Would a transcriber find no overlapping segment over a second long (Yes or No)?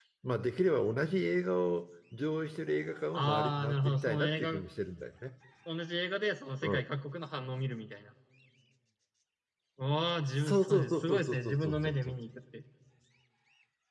No